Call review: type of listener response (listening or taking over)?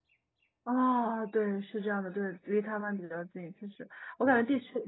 listening